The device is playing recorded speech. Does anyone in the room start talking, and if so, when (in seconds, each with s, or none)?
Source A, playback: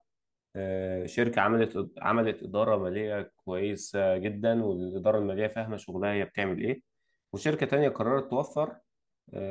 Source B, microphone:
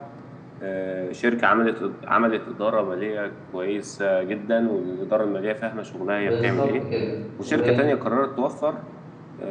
6.2 s